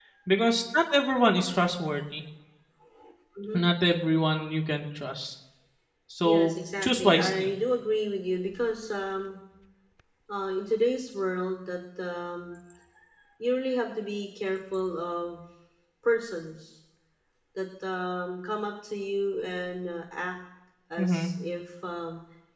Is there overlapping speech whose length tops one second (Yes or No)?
Yes